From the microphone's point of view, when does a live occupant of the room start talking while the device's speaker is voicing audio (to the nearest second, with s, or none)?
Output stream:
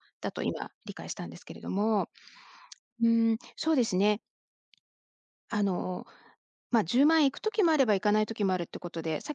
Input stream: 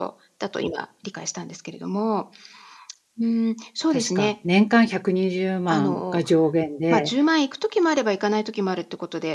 4 s